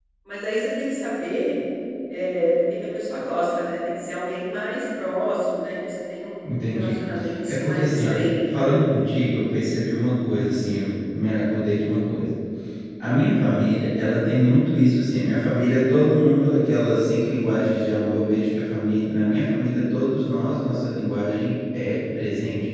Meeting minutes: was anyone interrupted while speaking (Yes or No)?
Yes